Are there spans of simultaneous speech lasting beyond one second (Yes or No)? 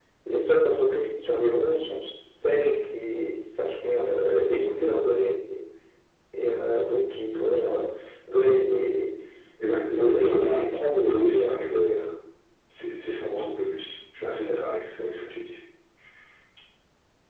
Yes